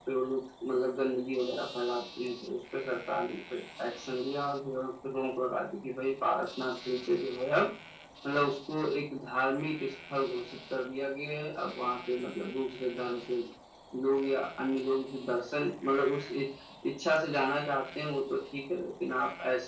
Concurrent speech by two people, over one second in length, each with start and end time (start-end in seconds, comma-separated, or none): none